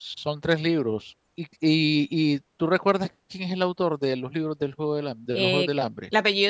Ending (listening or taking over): taking over